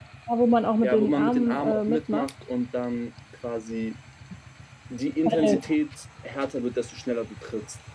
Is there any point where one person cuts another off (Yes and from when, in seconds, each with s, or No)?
Yes, from 0.8 s